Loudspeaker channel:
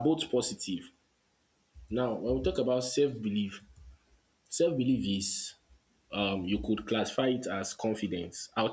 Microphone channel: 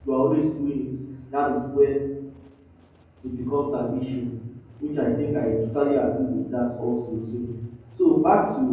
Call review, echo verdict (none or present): none